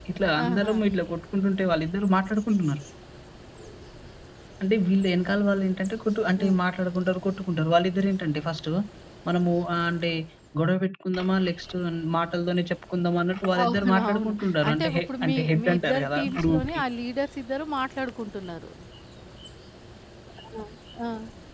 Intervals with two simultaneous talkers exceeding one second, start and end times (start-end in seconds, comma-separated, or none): 13.6-16.8